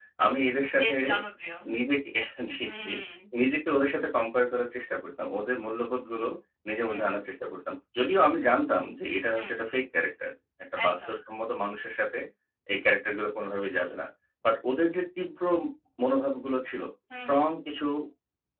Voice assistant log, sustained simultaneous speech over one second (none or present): none